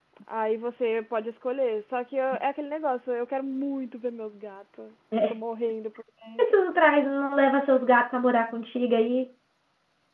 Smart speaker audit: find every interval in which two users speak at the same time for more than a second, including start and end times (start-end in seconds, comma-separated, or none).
none